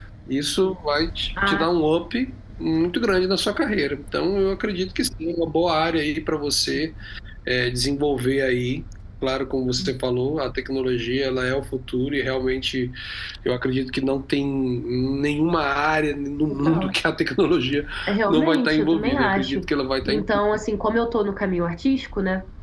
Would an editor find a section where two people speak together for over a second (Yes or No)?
Yes